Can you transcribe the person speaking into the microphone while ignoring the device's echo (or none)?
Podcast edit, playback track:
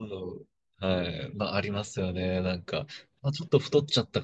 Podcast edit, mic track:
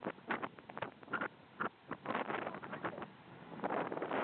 none